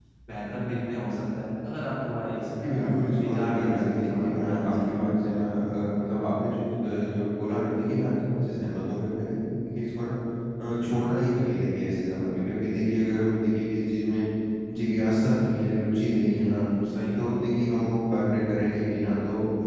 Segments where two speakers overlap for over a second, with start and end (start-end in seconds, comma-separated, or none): 2.6-5.0